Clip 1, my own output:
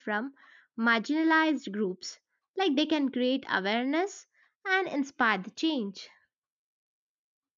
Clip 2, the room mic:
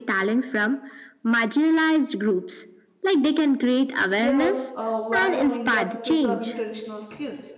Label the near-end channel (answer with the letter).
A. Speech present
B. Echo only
A